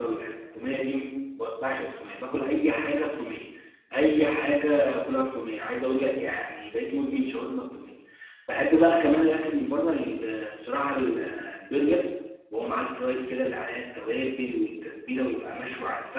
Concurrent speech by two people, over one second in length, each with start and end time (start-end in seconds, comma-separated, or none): none